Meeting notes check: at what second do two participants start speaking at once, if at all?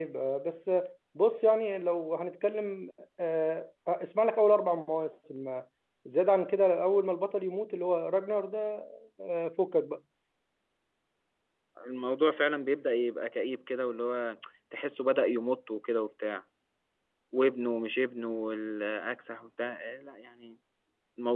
none

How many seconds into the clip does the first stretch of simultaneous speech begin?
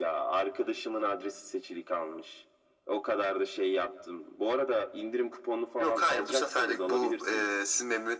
5.8 s

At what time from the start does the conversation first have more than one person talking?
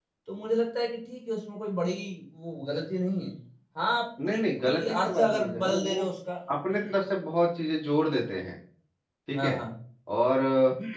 4.2 s

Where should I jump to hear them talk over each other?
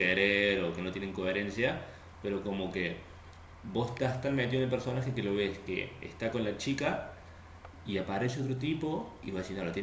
none

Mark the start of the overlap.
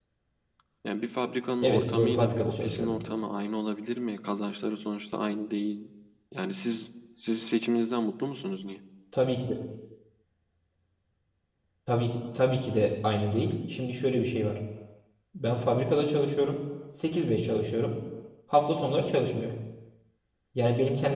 1.6 s

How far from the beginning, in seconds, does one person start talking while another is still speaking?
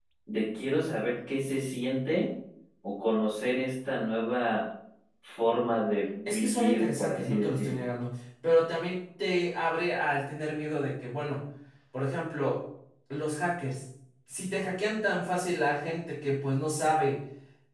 6.2 s

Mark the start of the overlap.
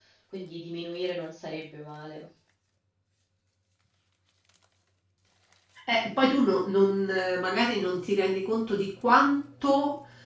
none

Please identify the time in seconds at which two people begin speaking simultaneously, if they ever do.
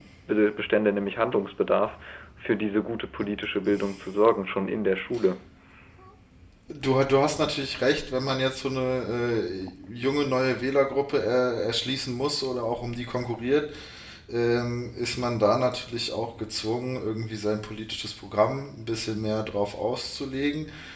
none

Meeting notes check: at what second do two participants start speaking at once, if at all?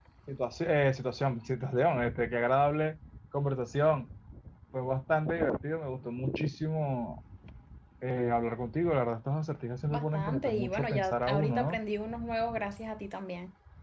9.9 s

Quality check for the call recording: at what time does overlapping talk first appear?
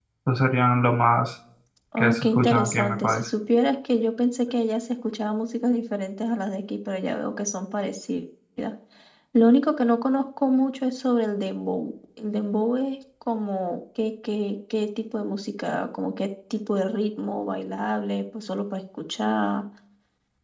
2.0 s

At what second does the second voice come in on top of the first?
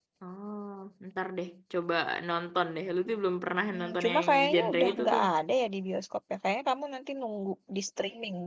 3.7 s

